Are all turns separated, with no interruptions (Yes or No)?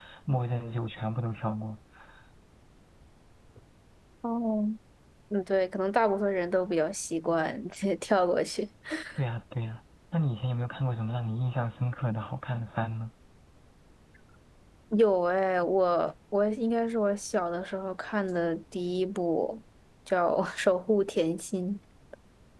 Yes